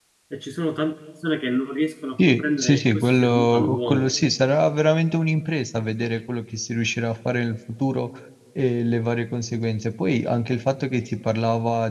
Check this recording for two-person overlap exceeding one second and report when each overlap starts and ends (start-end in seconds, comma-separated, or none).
2.2-4.1